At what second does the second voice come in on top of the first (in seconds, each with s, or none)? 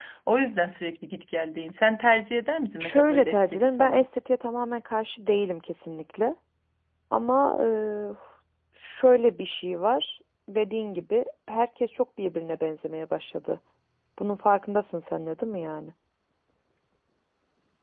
2.8 s